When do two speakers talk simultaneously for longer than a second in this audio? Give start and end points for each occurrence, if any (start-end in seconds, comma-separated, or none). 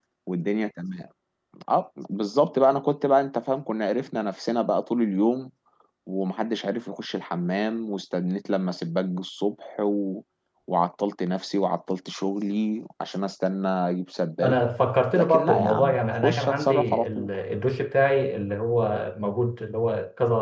15.2-17.3